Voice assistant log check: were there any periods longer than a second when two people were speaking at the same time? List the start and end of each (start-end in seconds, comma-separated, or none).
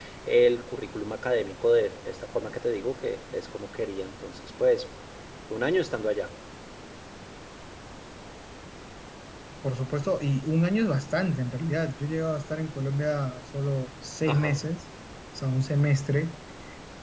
none